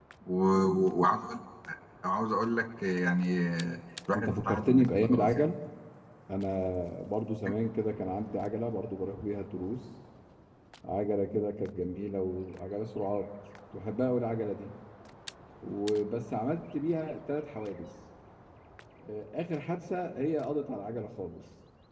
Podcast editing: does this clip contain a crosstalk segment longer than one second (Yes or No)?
Yes